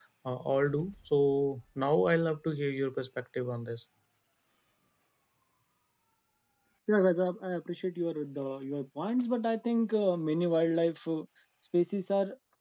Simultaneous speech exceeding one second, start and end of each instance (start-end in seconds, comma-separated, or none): none